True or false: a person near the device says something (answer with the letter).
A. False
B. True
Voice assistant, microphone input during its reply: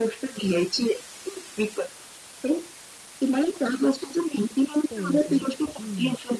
B